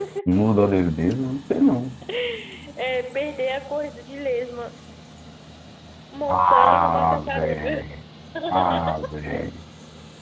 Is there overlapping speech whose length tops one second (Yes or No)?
Yes